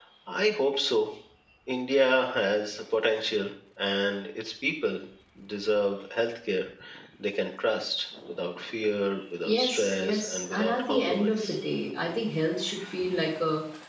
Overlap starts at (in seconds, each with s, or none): 9.4 s